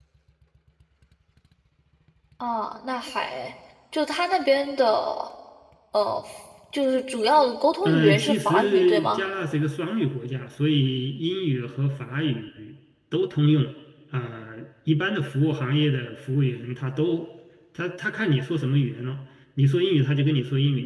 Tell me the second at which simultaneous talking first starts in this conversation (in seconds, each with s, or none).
7.8 s